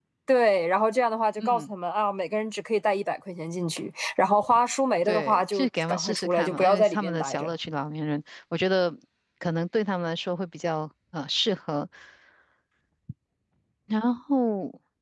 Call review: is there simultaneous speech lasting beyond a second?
Yes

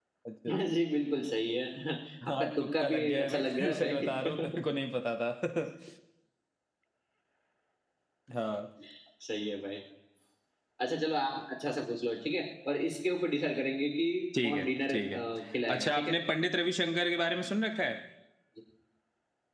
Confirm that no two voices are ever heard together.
No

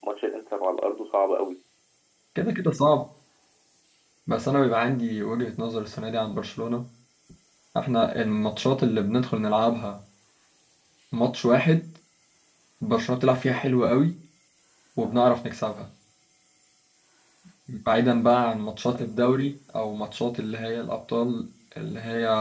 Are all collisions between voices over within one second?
Yes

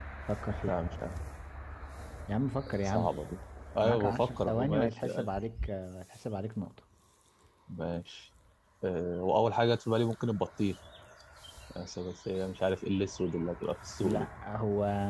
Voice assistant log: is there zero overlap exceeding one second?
No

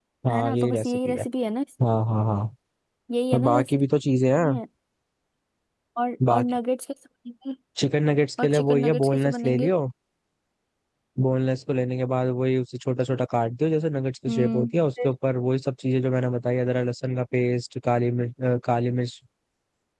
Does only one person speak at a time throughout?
No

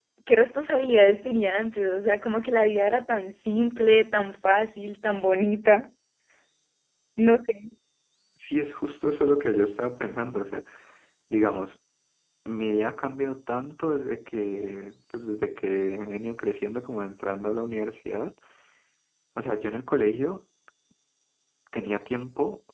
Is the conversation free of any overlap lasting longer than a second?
Yes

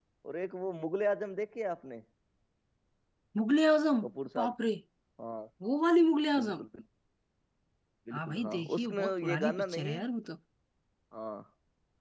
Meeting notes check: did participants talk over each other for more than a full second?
Yes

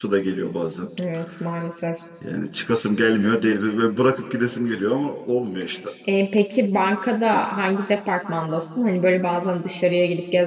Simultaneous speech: No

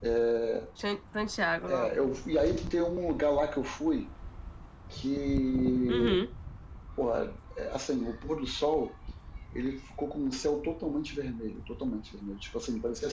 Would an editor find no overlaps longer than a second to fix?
Yes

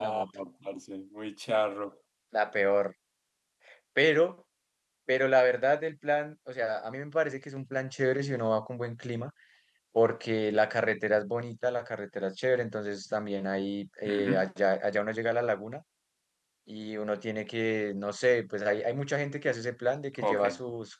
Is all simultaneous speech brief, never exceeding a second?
Yes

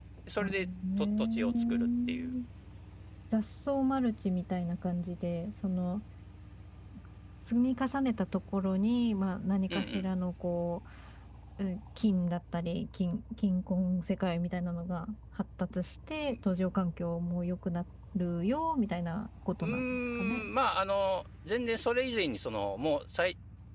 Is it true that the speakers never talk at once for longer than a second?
No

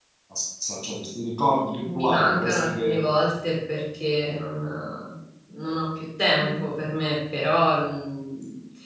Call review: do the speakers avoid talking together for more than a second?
No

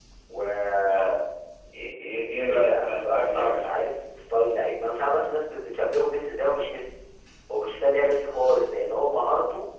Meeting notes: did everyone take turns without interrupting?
No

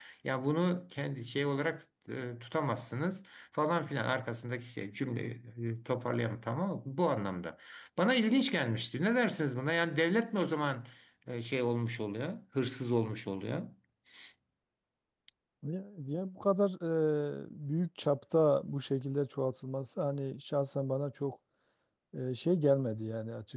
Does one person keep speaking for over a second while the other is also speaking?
No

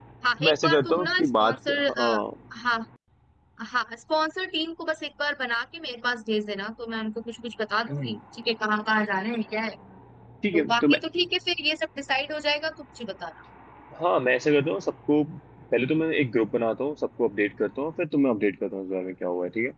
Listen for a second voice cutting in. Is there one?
Yes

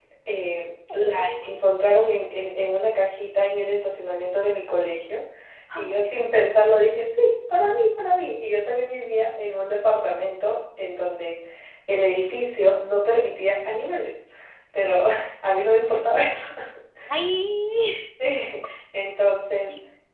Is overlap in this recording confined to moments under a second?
Yes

